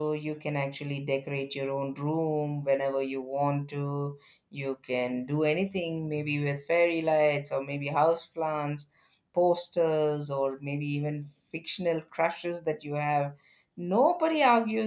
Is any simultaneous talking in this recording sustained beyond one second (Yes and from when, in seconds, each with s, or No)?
No